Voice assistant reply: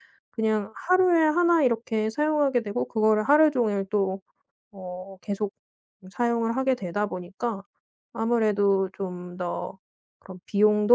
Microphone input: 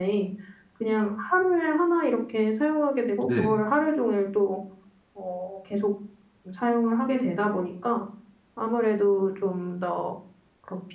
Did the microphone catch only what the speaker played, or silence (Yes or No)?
No